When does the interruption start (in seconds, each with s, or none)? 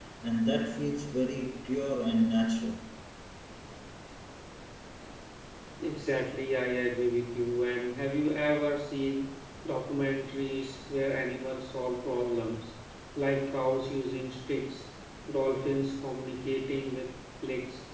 none